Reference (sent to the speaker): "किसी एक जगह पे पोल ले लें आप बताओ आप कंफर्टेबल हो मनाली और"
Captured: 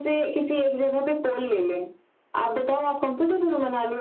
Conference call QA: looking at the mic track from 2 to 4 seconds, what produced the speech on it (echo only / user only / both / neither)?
echo only